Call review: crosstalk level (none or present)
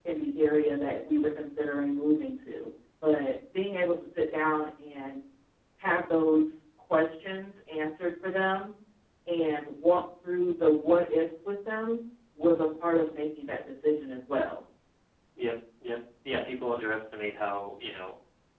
none